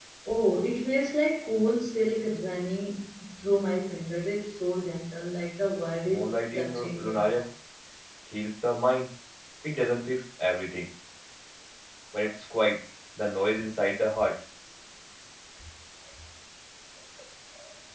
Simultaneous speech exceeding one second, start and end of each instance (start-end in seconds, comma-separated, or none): 6.1-7.4